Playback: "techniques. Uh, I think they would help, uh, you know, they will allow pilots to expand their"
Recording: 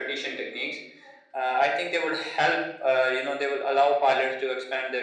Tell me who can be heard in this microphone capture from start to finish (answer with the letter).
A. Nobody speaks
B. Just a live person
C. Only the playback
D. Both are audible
C